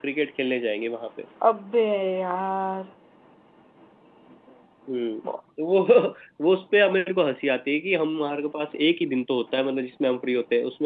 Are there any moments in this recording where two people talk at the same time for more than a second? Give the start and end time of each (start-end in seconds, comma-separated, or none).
none